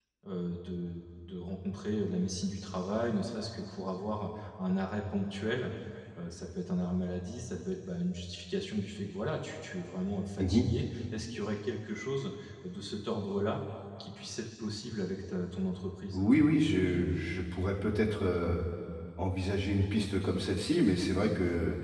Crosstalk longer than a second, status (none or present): none